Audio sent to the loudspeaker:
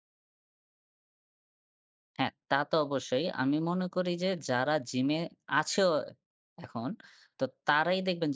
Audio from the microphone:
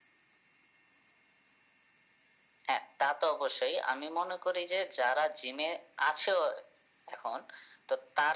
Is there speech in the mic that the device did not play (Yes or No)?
No